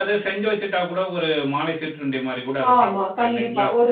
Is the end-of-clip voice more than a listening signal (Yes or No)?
Yes